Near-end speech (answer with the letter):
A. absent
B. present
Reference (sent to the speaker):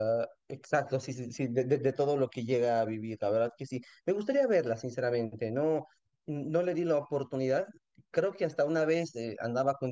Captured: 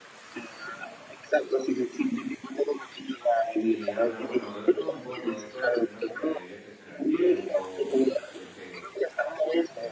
B